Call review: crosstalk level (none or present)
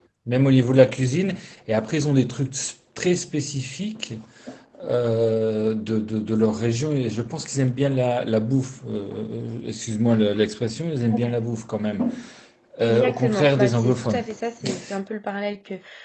present